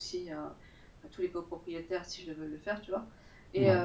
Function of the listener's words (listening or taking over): listening